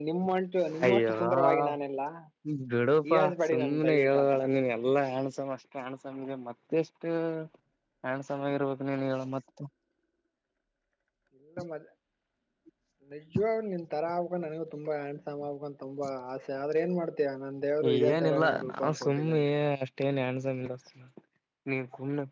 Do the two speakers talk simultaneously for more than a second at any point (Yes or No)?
Yes